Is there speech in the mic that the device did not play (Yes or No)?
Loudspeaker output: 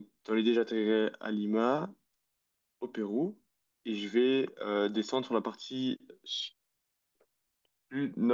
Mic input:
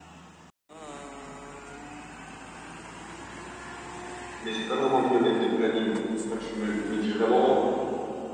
Yes